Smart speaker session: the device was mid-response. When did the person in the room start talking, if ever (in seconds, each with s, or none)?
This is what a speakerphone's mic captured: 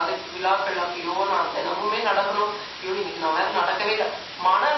none